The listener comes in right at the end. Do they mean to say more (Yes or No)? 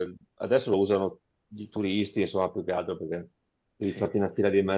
No